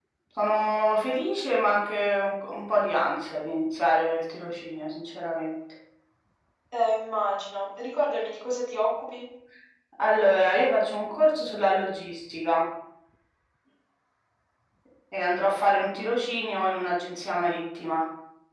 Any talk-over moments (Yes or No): No